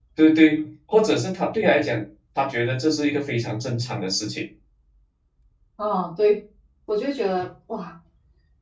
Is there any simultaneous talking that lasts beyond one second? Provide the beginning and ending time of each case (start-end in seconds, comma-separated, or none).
none